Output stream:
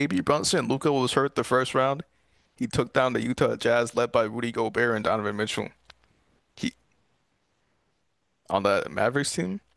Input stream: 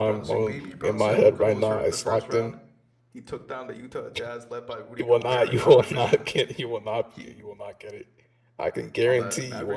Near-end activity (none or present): present